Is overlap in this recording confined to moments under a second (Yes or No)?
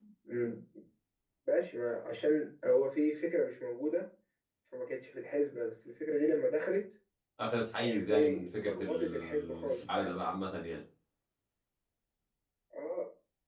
No